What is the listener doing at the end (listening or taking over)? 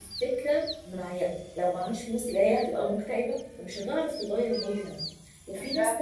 listening